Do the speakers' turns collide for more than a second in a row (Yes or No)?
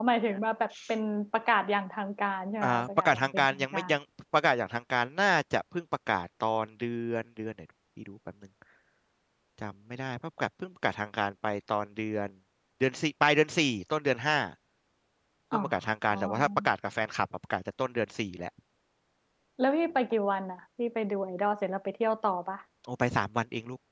Yes